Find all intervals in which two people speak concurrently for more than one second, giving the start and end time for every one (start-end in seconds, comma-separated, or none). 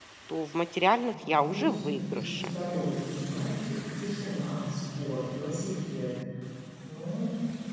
1.3-2.5